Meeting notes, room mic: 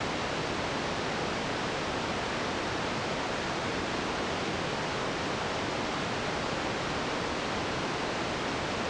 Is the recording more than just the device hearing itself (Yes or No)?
No